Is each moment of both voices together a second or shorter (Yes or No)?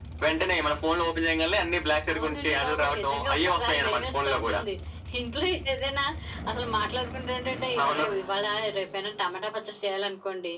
No